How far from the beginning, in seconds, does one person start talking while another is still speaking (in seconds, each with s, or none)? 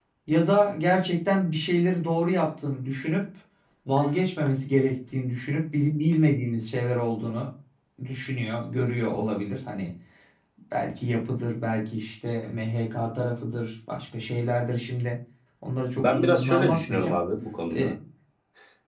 16.0 s